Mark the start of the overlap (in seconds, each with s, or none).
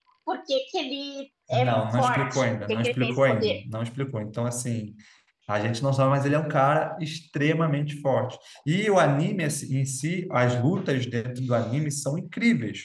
1.5 s